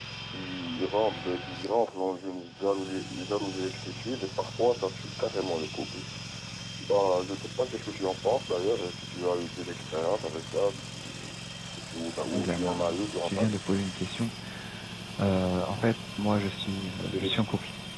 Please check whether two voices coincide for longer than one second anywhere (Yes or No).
Yes